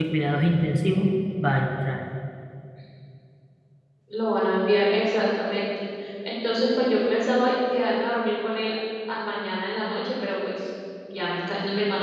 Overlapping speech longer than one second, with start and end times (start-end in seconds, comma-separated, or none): none